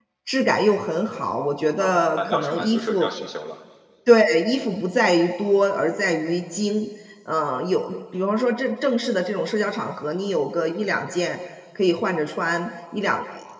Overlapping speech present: Yes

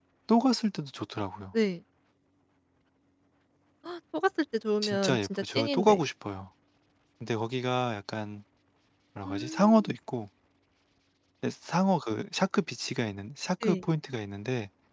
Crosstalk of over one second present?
Yes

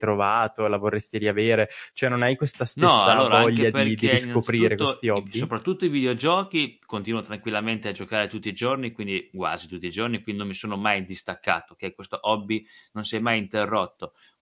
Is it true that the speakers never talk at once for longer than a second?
No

